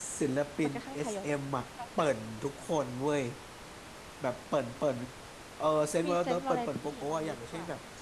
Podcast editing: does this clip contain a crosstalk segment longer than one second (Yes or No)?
Yes